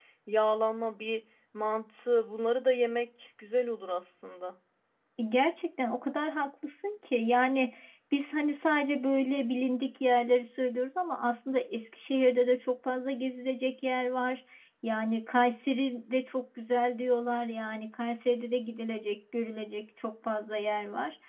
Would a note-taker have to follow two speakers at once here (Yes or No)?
No